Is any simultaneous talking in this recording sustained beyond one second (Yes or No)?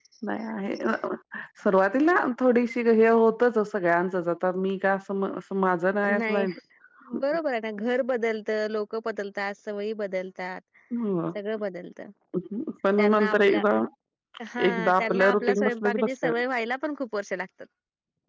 Yes